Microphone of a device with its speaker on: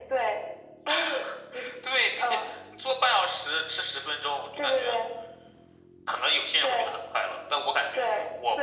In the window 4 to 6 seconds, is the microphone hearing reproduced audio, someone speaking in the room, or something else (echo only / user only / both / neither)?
echo only